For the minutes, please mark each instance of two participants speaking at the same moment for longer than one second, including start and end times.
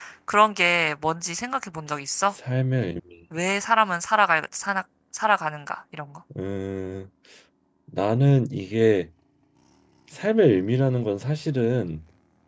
none

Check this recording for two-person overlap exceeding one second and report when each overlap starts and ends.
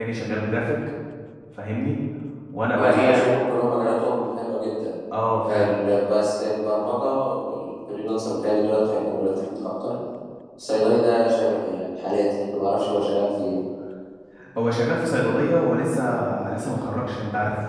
none

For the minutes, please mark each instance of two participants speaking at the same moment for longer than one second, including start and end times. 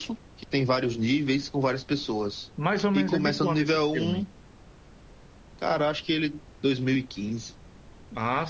2.9-4.2

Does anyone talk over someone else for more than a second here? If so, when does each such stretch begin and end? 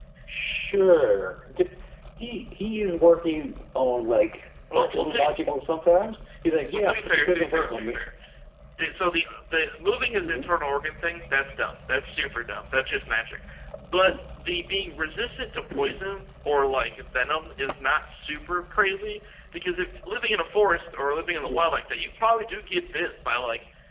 6.7-8.0

